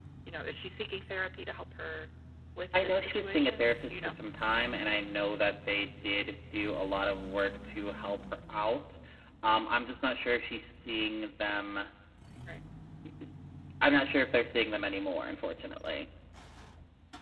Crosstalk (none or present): present